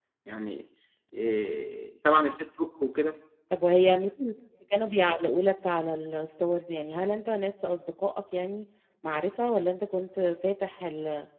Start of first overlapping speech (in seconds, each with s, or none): none